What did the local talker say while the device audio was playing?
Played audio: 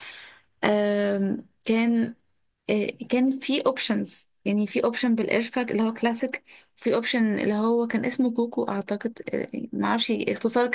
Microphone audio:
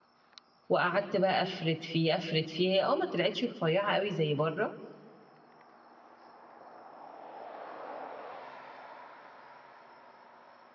وقعدت بقى افرد فيه افرد فيه هي اه ما طلعتش رفيعة قوي زي بره

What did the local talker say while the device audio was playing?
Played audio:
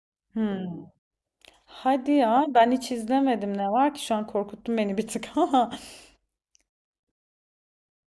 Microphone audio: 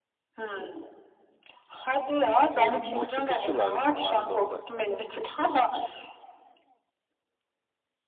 Peru. Machu Picchu'lar mı vardı orada?

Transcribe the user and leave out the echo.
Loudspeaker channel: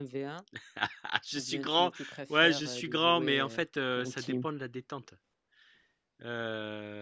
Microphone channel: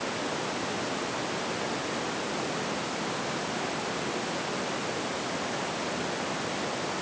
none

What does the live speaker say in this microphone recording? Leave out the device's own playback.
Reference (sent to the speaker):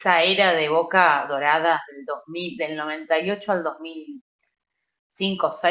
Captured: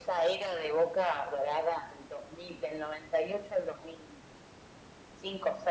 none

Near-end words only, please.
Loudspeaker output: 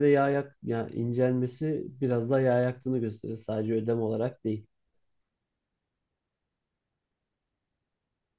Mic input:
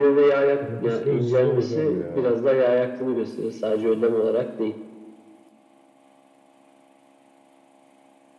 Onun psikolojisi zor hocam ya.

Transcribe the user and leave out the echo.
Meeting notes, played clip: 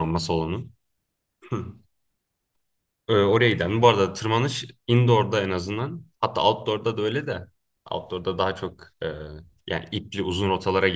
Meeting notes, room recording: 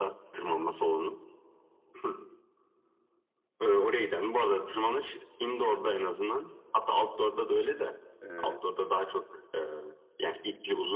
e,

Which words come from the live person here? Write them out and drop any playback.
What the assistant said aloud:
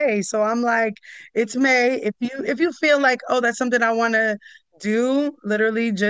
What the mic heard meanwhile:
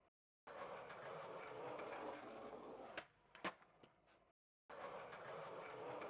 none

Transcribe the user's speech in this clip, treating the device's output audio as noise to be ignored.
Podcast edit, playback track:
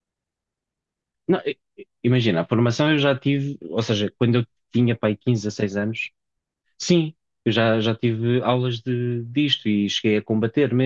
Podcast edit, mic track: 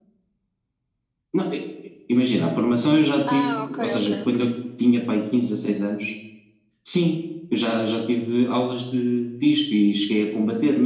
Ah, ok, ok, ok.

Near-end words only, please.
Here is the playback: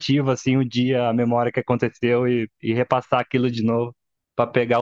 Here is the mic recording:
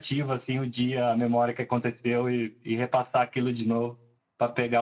none

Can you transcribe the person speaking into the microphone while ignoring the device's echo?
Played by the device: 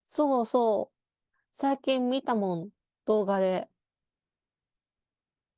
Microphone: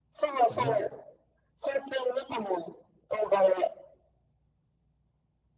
早っ。

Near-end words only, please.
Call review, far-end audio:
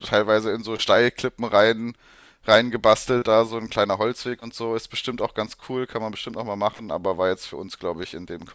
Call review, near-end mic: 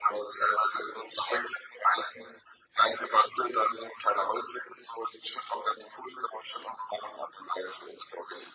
none

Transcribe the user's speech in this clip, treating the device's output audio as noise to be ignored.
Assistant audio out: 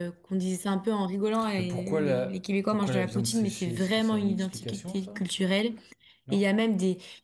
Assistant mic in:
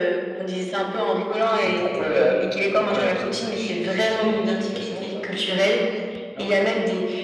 none

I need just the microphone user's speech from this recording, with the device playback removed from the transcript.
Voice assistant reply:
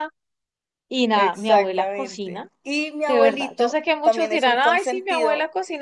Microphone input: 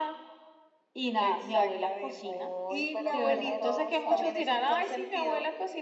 Uy, pero qué generosa.

